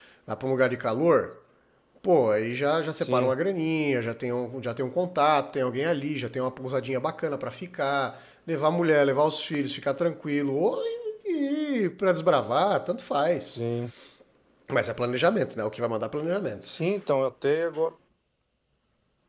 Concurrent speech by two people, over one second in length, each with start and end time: none

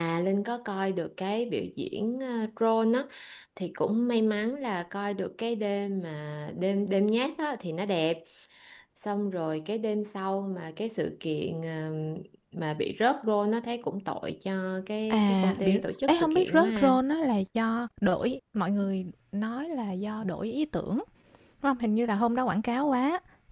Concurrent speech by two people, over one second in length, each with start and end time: 15.1-16.9

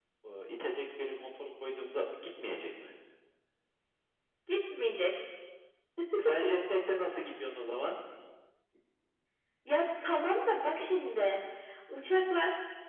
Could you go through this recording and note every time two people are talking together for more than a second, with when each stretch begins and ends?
none

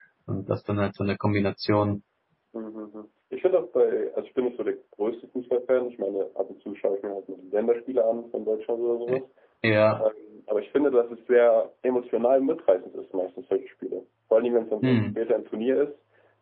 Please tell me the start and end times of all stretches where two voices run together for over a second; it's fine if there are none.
none

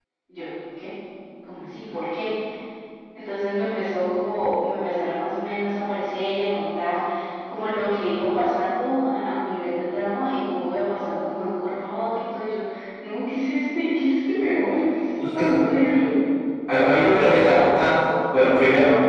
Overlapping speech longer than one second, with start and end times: none

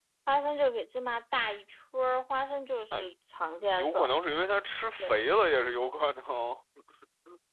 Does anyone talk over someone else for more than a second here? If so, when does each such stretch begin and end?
none

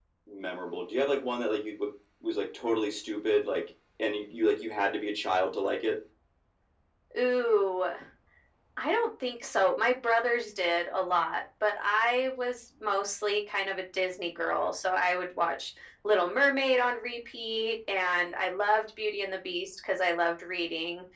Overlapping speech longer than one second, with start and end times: none

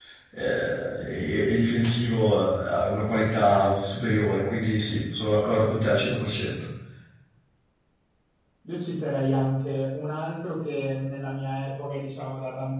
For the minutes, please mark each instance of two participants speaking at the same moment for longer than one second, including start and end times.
none

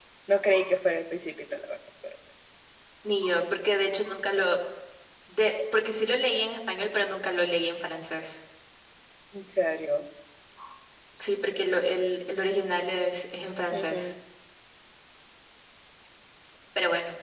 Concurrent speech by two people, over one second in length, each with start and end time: none

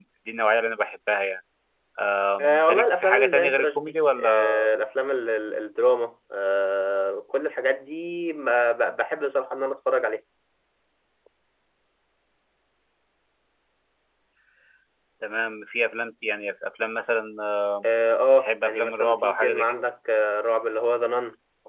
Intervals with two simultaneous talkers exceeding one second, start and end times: 2.4-4.5, 18.3-19.8

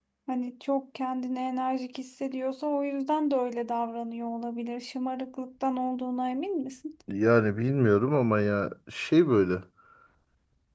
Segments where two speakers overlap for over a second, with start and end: none

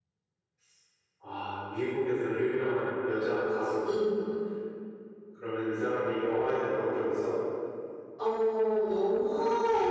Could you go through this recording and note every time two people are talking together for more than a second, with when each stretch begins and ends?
none

